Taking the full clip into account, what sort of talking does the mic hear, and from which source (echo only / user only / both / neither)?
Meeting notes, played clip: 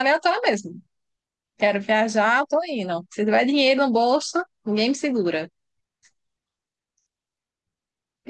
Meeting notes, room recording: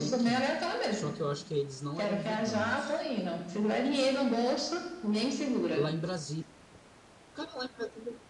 both